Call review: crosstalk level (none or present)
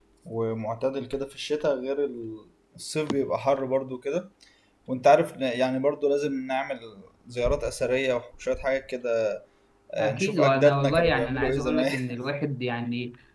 present